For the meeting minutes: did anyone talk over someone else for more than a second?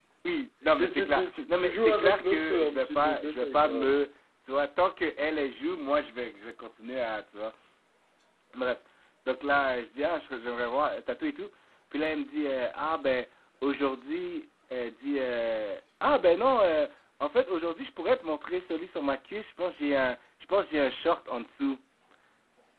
Yes, from 0.8 s

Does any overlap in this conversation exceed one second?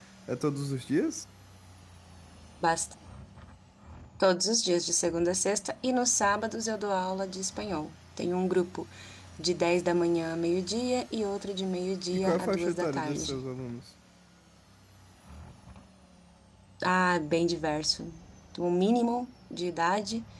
Yes, from 12.1 s

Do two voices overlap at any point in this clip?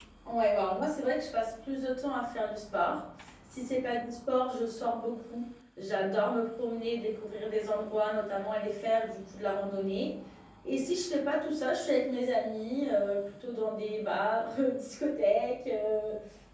No

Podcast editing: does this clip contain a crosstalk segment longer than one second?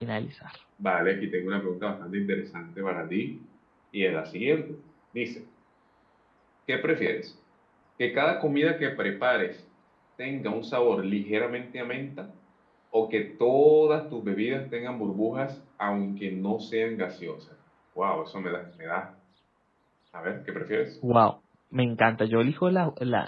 No

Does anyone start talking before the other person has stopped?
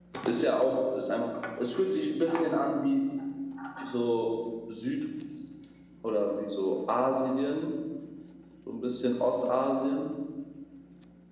No

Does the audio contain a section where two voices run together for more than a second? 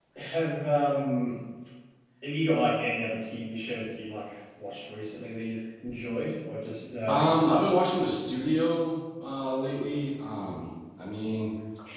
No

